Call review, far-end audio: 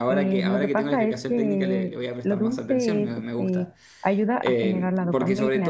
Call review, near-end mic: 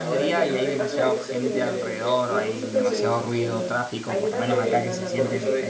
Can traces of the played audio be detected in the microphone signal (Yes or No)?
Yes